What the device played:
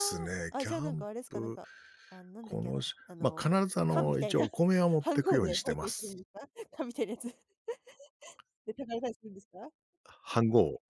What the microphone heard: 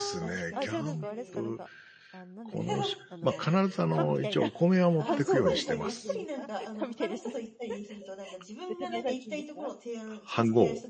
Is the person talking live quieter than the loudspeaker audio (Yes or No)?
Yes